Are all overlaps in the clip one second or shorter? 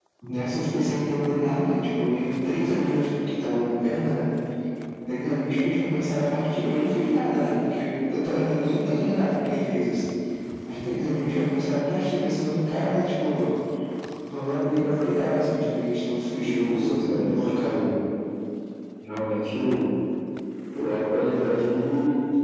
No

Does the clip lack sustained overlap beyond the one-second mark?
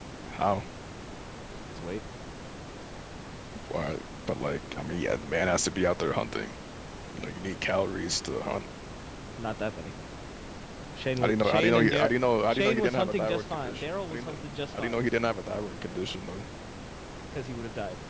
No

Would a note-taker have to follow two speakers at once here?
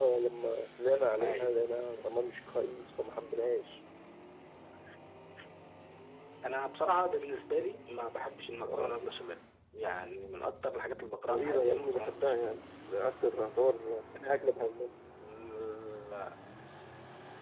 Yes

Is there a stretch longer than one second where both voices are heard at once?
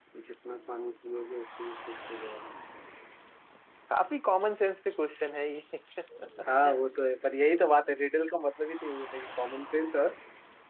No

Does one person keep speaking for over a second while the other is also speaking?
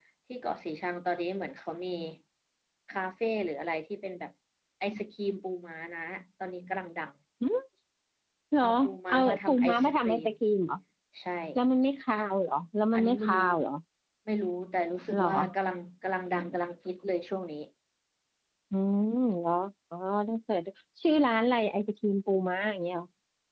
Yes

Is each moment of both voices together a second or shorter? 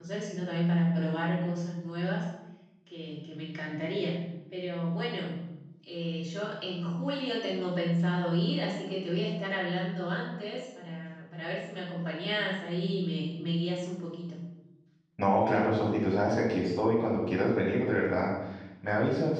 Yes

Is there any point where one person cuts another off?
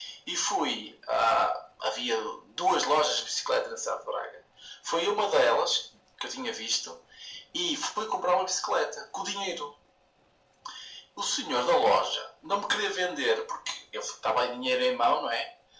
No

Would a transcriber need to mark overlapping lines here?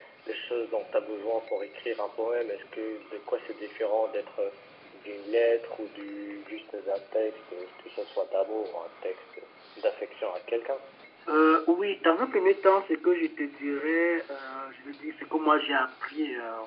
No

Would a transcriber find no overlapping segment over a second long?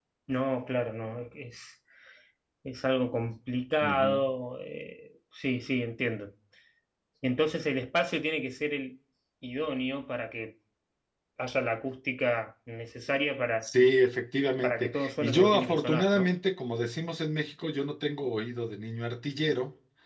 No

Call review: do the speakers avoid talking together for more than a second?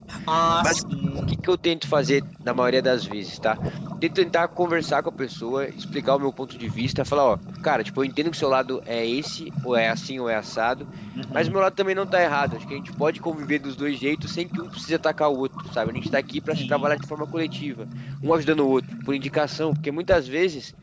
Yes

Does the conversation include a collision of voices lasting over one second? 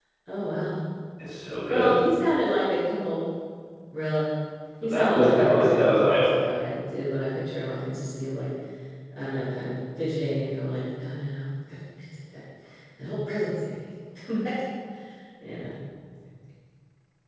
Yes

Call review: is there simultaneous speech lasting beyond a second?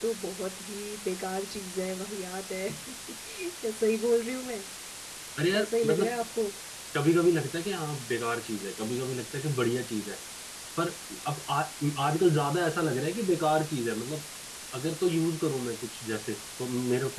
No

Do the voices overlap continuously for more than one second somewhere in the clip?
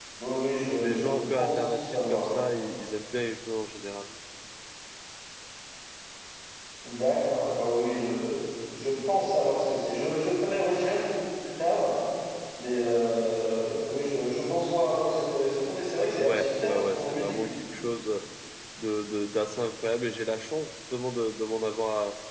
Yes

